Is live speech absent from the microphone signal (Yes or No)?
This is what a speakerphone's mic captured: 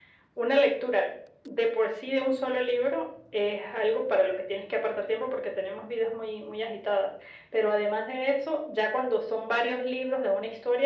Yes